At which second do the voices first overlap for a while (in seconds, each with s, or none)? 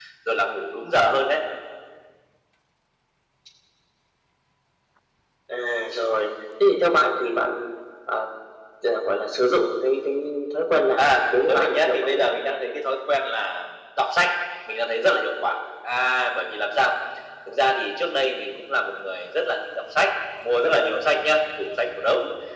11.0 s